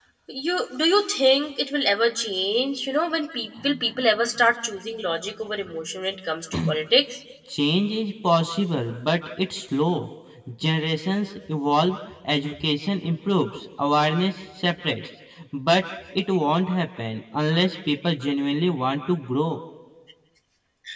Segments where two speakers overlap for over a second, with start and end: none

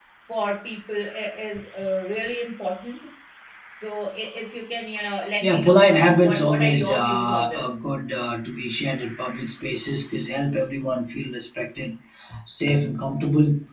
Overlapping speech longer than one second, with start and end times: 5.4-7.7

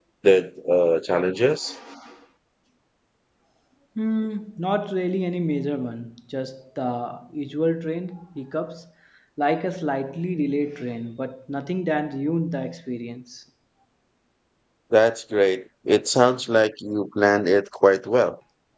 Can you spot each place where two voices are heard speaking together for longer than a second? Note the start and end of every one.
none

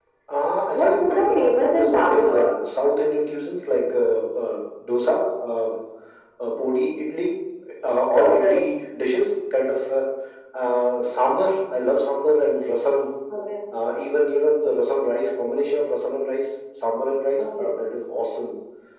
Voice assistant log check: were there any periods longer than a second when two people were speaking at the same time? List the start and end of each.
0.7-2.5

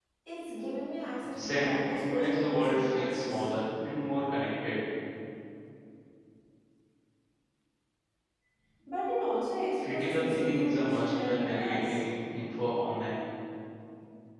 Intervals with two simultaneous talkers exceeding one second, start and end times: 1.4-3.5, 9.9-12.0

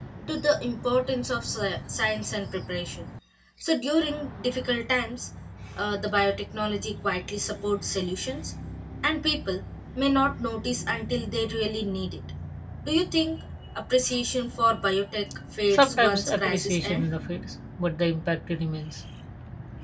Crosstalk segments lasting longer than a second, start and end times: 15.7-17.0

